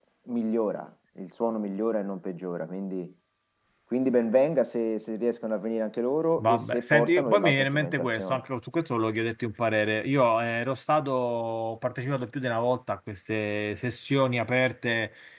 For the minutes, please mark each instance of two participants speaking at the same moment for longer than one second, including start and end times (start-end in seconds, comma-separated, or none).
6.4-8.4